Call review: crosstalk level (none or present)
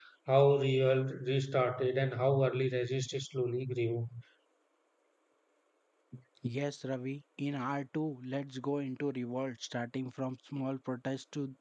none